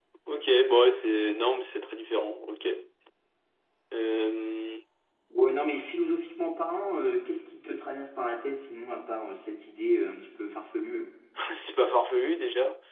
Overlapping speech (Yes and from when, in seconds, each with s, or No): No